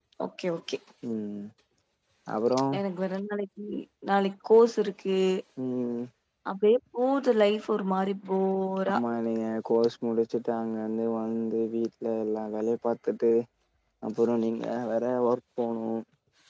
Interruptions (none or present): none